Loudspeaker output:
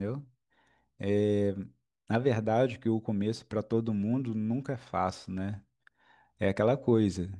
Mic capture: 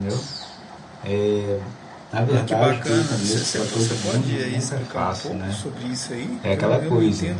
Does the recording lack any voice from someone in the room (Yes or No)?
No